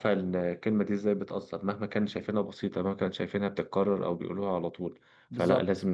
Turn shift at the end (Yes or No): No